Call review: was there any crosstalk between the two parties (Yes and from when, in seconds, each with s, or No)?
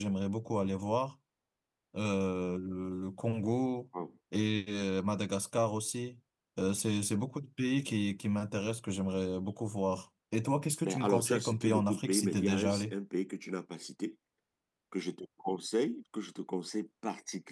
Yes, from 10.8 s